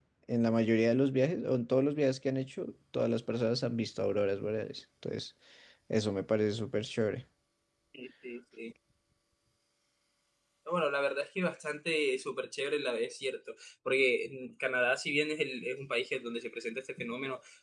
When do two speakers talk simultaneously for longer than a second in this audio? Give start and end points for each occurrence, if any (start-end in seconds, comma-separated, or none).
none